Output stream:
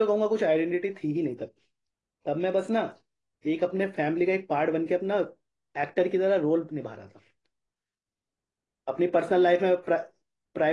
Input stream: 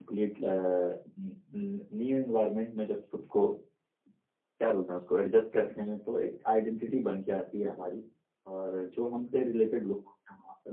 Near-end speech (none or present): present